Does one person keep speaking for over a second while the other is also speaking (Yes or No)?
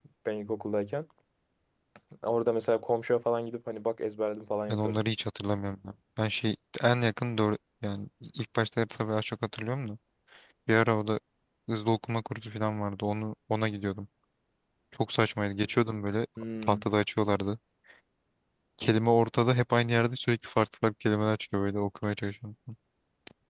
No